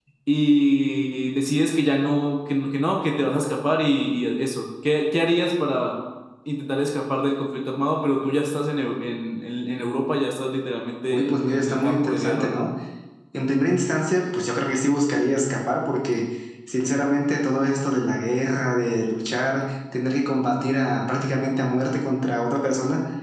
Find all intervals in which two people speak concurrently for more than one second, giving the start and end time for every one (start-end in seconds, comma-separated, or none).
11.1-12.5